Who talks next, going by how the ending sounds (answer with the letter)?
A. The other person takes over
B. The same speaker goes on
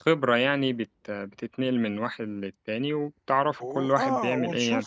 A